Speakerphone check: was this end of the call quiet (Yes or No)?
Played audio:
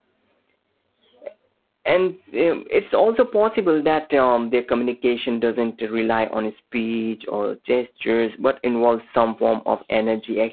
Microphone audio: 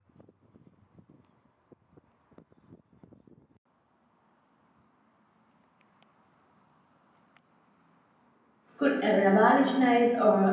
No